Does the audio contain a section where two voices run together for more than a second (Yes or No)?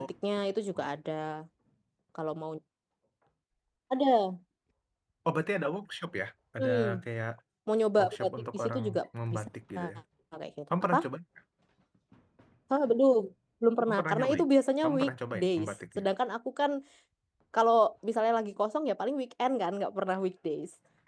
Yes